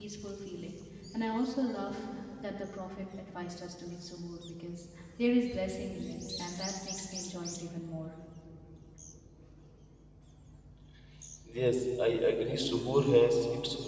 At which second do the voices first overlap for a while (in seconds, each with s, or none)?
none